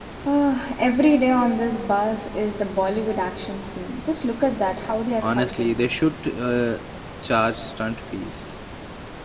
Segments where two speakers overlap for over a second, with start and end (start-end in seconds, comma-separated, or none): none